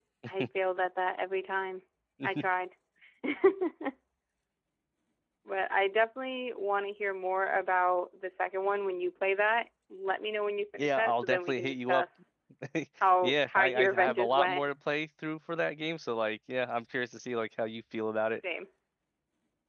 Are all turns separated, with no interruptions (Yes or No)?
No